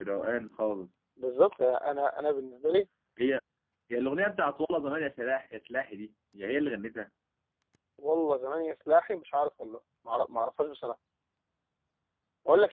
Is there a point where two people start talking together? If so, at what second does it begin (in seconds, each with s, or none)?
none